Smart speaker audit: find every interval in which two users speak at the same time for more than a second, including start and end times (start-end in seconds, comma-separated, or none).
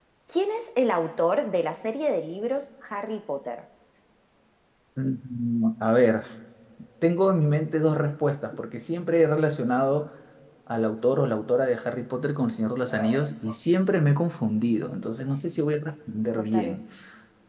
none